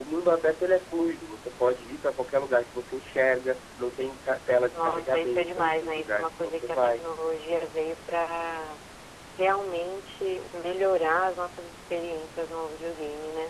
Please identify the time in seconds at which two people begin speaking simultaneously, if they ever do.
4.7 s

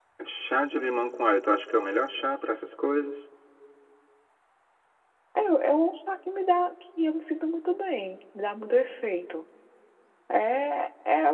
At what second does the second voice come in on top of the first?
none

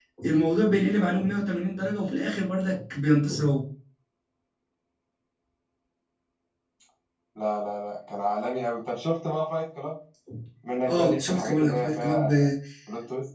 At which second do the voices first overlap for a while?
10.9 s

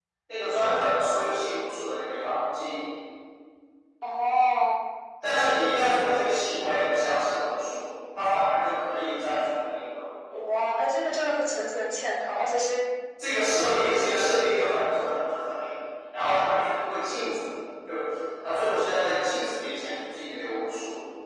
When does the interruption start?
none

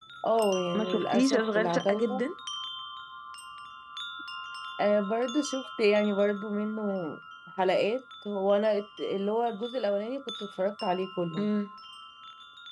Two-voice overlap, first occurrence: 0.7 s

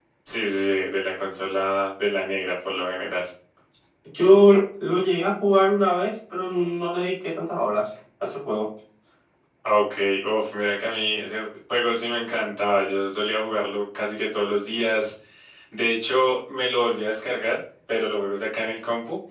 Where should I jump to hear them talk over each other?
none

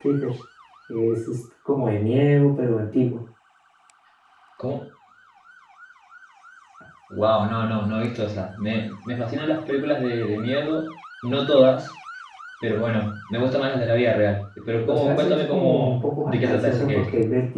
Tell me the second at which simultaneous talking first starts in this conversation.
14.9 s

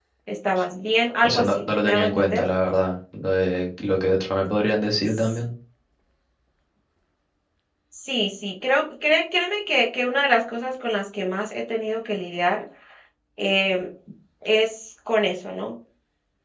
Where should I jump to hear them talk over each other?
1.2 s

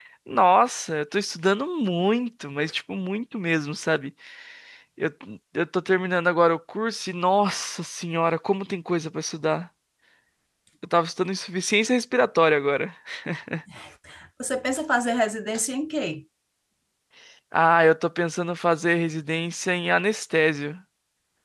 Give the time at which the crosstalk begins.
none

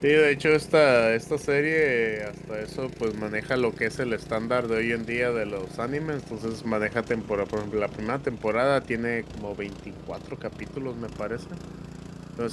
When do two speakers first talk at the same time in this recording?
none

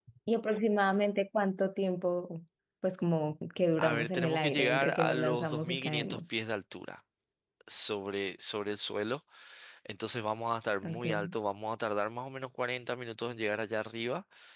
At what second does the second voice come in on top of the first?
3.8 s

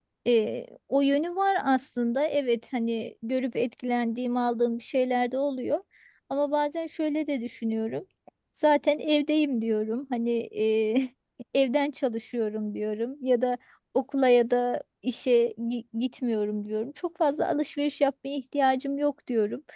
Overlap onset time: none

